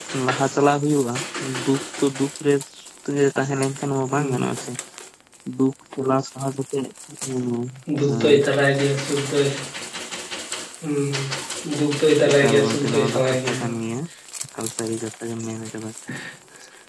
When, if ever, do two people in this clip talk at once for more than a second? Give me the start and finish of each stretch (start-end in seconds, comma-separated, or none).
12.3-13.6